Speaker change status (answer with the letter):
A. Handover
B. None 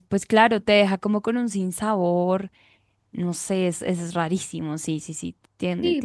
A